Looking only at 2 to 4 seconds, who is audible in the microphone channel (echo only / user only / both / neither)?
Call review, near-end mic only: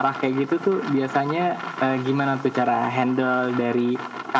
echo only